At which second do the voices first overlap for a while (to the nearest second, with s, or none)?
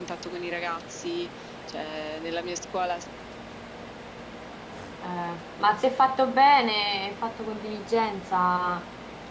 none